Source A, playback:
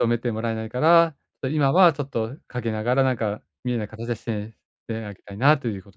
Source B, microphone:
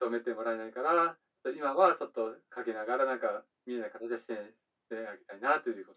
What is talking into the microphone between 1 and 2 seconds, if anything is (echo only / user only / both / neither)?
echo only